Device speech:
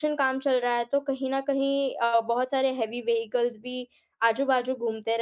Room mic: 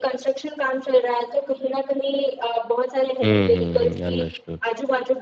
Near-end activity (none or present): present